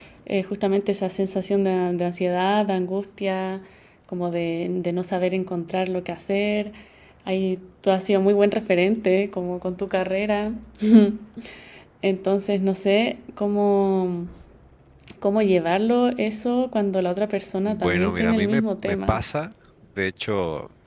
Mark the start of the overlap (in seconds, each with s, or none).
17.7 s